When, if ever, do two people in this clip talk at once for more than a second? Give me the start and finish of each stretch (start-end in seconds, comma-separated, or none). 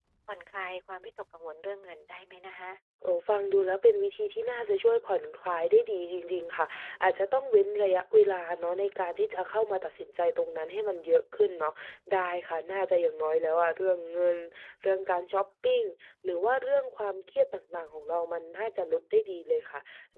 none